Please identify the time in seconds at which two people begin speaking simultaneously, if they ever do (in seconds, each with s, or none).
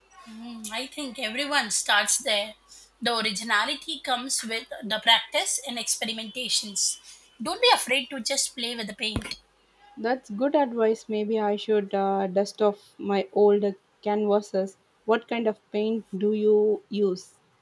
none